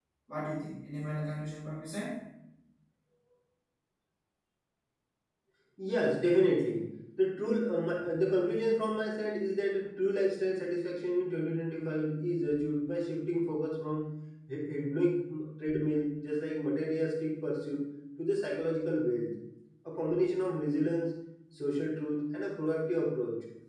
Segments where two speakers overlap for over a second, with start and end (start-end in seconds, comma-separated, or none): none